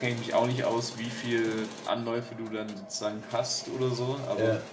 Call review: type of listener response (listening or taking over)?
listening